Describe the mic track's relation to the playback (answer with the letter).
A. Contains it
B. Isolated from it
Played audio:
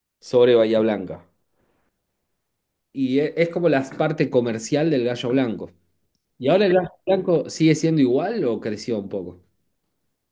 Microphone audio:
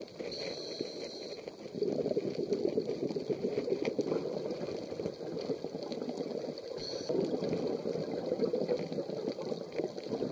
B